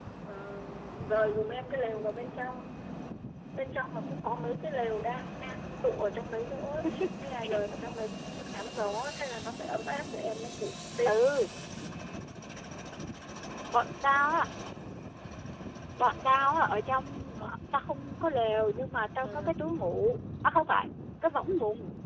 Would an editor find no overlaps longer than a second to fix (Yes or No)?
Yes